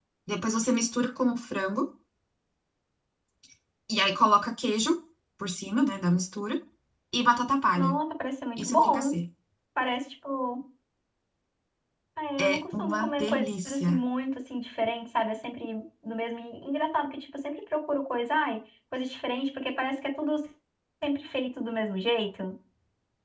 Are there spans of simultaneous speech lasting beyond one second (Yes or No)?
Yes